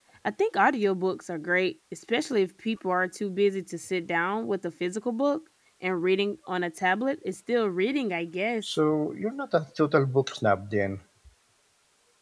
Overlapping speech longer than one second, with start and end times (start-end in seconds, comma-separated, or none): none